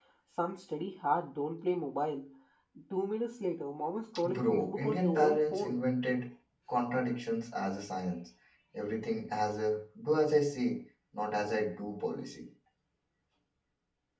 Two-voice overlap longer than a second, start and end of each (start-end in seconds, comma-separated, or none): 4.2-5.8